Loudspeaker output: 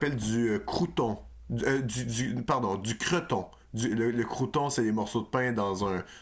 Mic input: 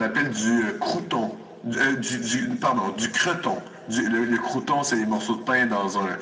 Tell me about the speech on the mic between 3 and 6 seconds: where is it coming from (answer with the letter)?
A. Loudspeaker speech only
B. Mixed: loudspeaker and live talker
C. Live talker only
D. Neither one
A